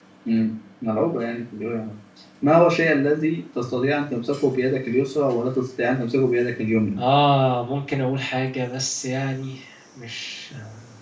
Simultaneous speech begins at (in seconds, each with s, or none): none